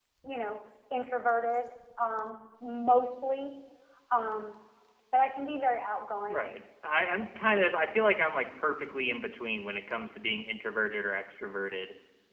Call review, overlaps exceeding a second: none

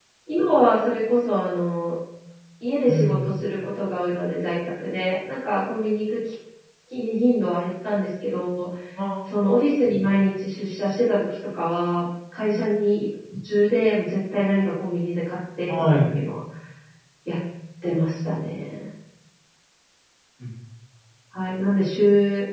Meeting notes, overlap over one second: none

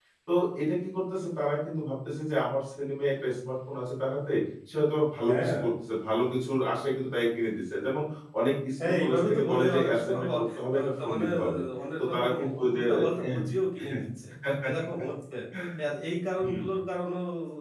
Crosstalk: present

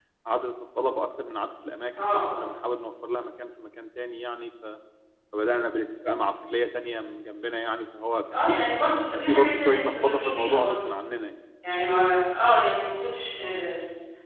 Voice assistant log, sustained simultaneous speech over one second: present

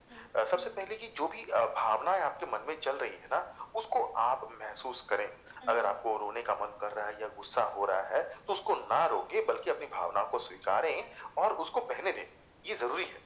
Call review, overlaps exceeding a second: none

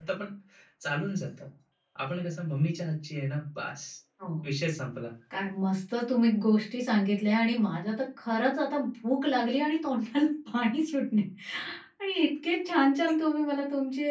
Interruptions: none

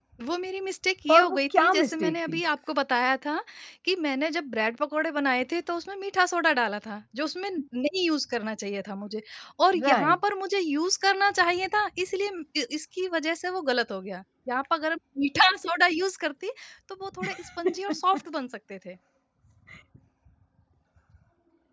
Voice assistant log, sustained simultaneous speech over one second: present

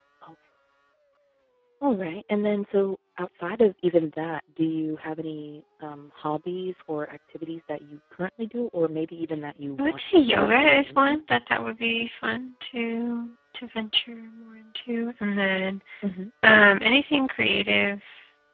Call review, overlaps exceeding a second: present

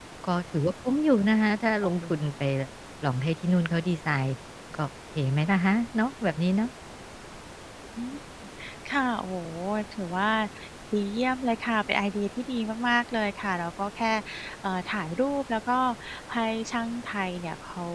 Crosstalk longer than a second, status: none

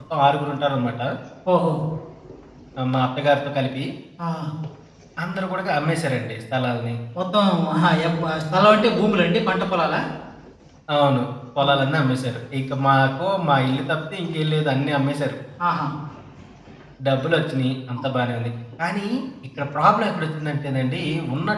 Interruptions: none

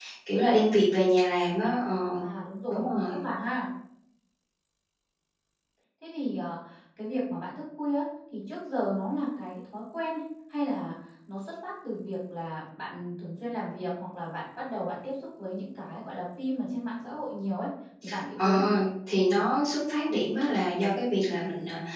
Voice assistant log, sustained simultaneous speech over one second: none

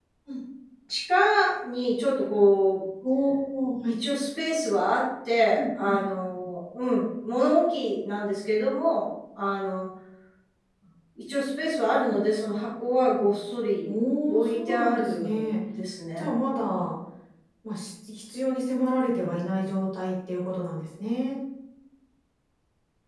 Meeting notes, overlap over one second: present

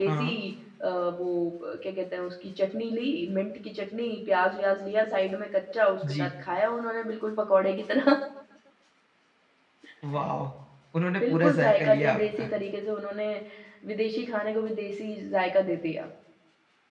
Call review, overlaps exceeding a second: present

